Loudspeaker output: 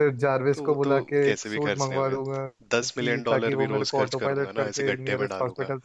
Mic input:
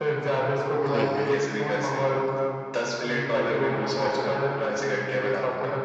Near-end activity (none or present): present